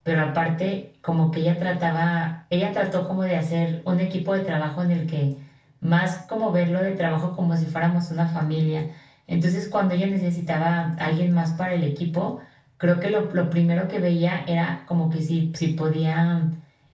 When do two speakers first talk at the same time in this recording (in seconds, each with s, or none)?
none